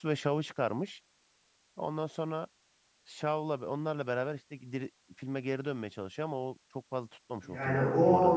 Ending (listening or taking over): taking over